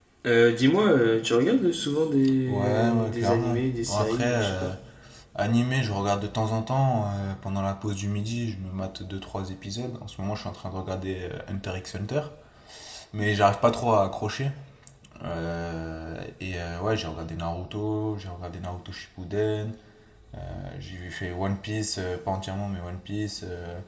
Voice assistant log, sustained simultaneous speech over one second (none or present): present